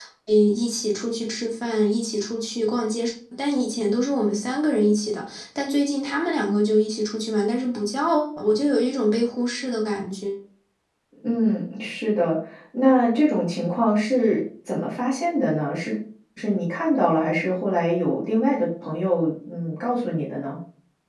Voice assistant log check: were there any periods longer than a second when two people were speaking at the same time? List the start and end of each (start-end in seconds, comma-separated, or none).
none